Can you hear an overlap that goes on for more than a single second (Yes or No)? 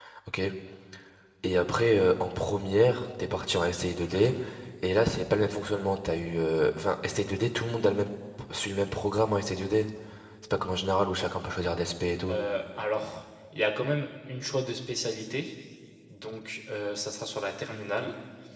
No